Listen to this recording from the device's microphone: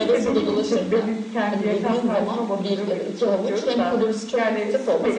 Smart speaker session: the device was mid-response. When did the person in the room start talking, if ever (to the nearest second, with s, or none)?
none